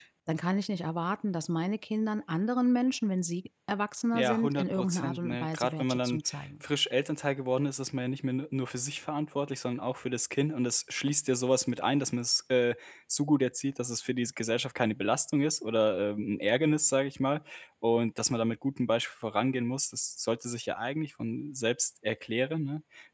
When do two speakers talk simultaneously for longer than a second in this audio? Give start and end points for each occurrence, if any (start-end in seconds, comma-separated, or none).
4.1-6.2